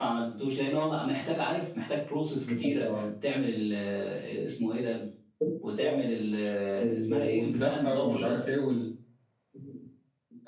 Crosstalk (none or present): present